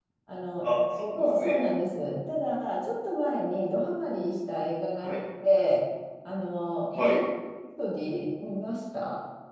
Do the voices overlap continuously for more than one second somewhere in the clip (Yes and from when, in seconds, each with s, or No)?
No